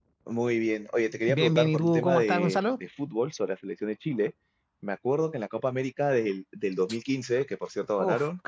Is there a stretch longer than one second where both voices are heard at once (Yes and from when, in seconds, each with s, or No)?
Yes, from 1.3 s